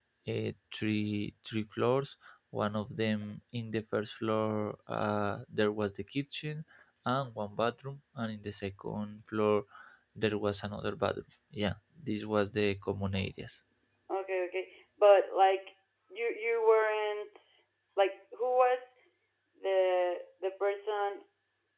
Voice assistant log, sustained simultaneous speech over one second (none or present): none